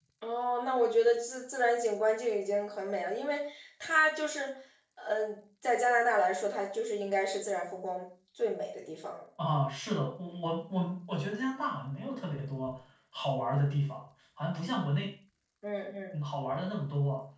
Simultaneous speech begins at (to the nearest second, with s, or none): none